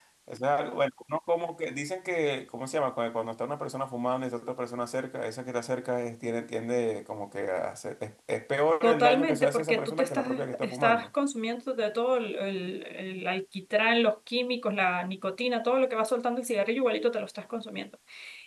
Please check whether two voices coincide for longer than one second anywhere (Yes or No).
Yes